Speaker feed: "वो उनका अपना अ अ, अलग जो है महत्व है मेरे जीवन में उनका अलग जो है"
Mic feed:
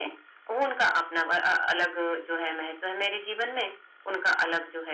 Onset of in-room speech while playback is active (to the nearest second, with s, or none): none